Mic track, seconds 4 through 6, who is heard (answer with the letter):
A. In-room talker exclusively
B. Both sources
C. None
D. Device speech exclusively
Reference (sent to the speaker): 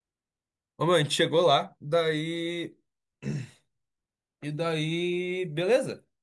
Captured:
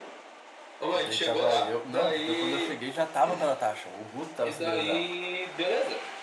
B